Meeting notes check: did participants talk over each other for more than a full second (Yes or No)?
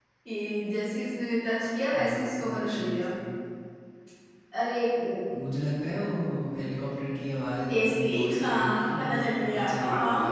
Yes